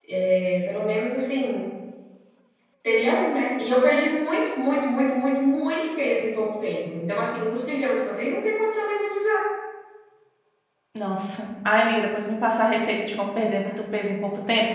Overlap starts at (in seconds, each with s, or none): none